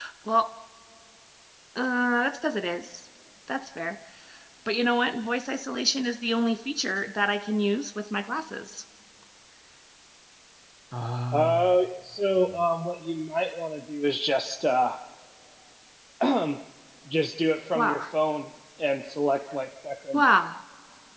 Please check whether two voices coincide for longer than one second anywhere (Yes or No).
No